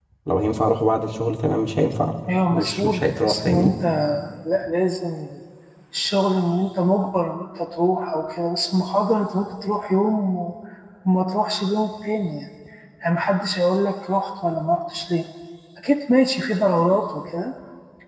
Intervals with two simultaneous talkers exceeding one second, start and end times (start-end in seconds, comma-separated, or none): 2.5-3.7